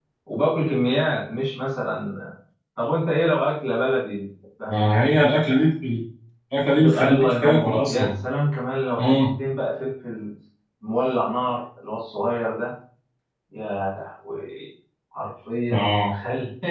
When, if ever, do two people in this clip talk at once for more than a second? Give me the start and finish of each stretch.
6.8-8.2

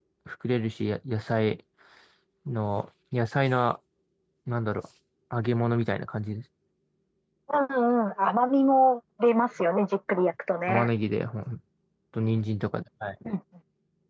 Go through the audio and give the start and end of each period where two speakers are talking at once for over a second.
none

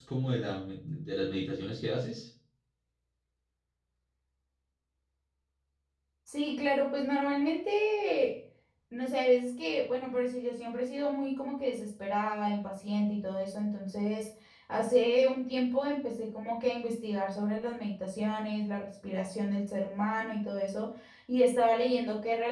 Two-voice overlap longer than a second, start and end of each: none

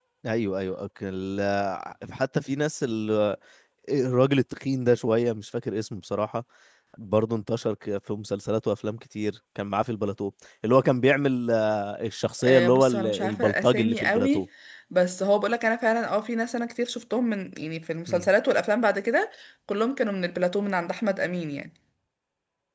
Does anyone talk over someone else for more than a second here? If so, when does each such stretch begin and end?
12.4-14.5

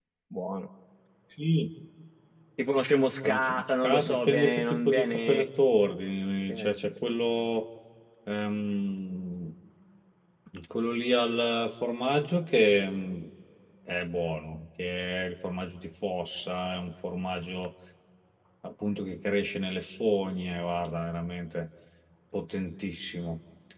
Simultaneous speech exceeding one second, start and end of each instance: 3.2-5.4

